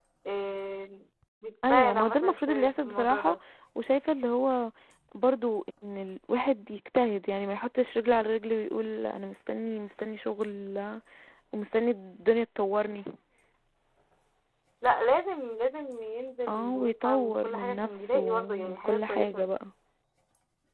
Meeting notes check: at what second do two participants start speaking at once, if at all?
1.7 s

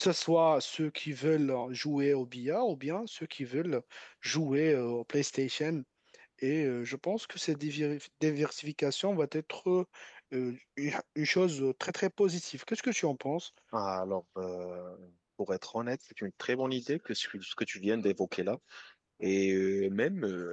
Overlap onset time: none

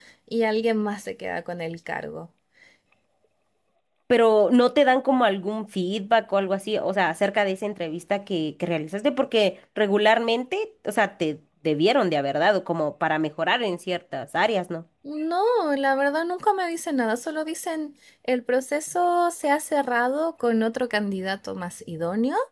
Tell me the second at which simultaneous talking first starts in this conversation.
none

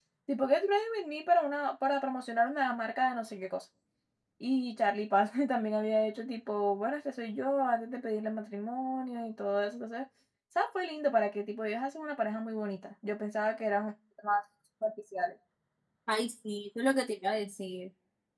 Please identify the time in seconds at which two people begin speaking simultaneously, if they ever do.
none

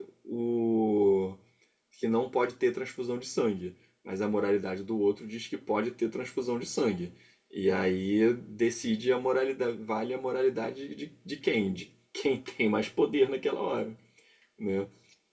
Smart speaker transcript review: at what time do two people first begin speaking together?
none

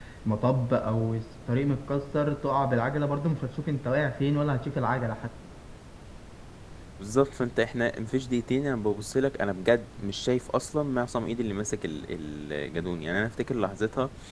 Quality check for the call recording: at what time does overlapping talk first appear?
none

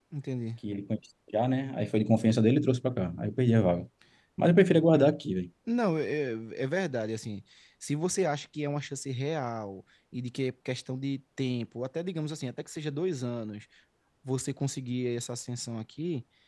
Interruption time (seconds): none

